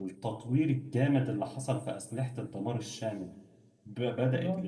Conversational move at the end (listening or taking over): listening